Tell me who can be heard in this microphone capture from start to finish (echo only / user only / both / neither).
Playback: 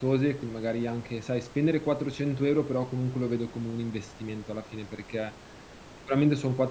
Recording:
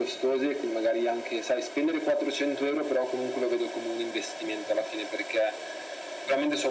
echo only